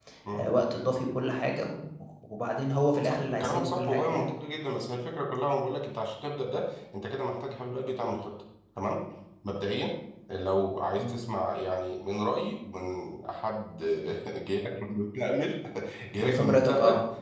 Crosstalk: present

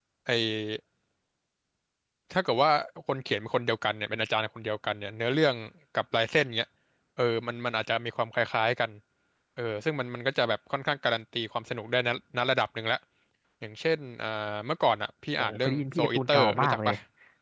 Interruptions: present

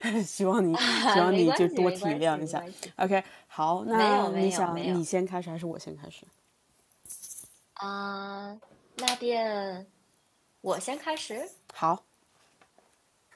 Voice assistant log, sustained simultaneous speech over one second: present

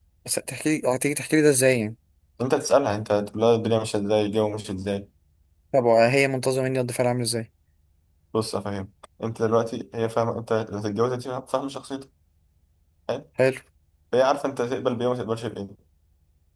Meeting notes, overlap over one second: none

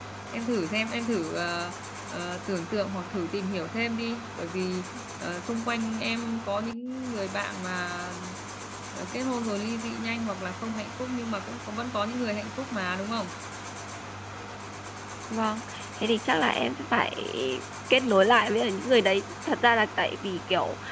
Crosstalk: none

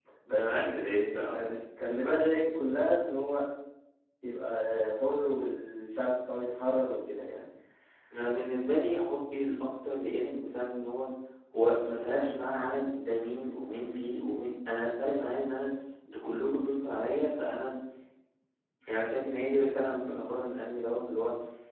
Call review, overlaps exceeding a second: present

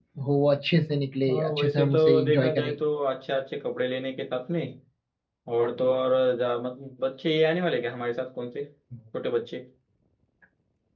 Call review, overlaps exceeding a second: present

